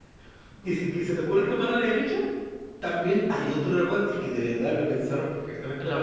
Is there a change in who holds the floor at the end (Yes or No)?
No